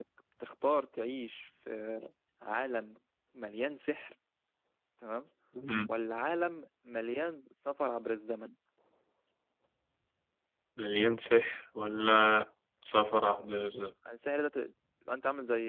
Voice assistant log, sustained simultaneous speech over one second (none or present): none